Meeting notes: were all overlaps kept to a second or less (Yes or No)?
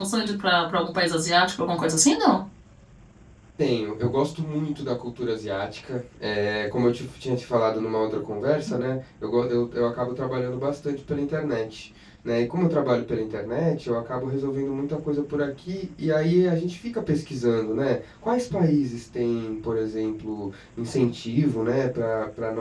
Yes